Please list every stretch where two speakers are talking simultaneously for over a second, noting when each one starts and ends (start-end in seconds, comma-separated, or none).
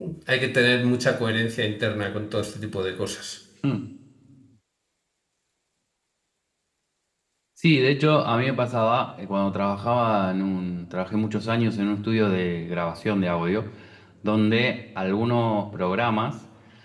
none